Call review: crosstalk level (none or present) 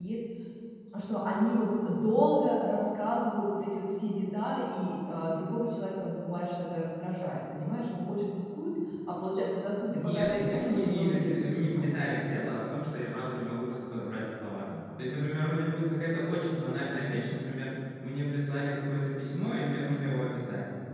present